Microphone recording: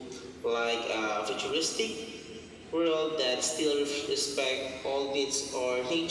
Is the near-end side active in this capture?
No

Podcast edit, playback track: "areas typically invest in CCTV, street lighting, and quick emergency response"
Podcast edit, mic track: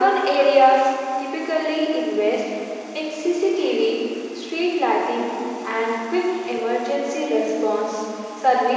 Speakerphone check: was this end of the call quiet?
Yes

